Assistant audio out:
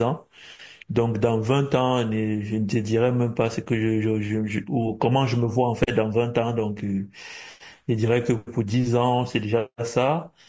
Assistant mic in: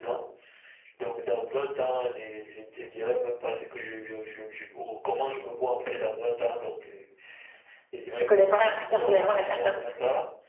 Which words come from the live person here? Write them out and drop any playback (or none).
je connais pas personnellement la personne.